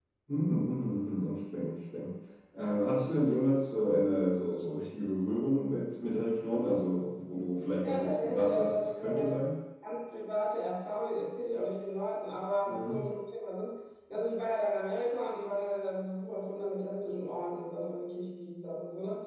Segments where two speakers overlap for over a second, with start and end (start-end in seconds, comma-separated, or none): 7.8-9.3